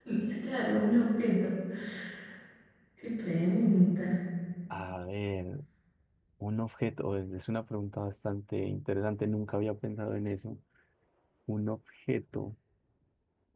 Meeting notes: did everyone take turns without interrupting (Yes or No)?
Yes